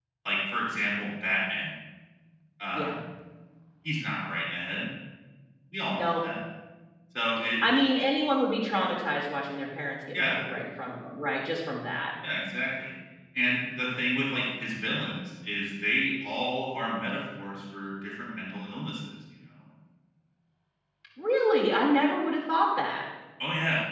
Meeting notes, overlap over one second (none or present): none